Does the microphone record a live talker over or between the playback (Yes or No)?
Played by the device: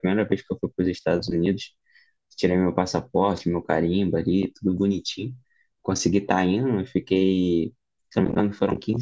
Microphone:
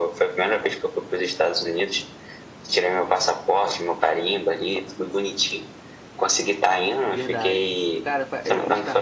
Yes